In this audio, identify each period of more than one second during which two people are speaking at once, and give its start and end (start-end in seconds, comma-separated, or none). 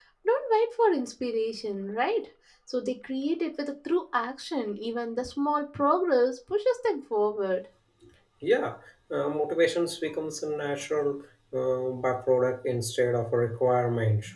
none